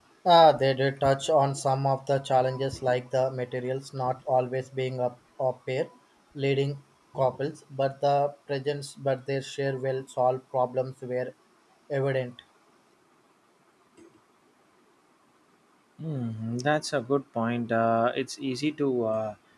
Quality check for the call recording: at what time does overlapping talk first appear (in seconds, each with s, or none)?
none